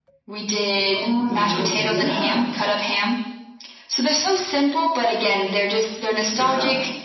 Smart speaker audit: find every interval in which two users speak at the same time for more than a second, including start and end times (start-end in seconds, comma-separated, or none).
0.8-2.4